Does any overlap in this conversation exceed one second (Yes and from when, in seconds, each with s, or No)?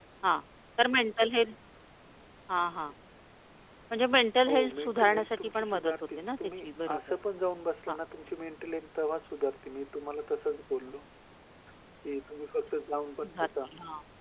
Yes, from 4.5 s